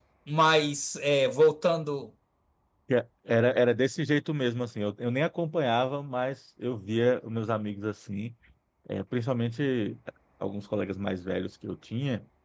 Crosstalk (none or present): none